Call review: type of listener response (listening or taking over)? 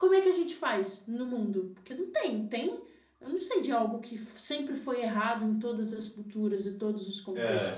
taking over